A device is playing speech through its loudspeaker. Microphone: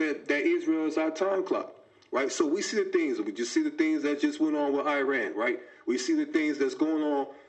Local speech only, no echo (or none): none